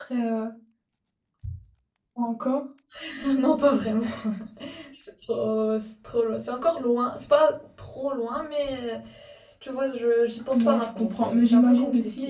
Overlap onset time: 10.5 s

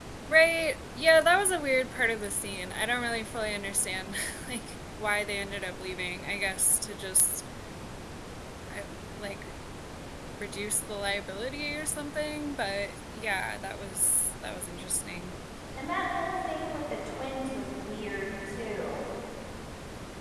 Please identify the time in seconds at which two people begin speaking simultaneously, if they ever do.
none

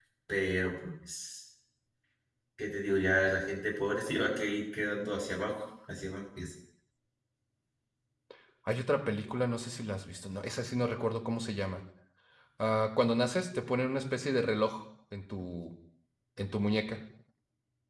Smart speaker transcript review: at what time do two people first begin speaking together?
none

